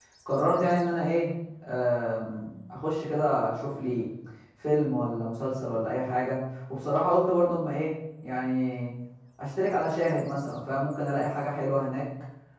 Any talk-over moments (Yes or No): No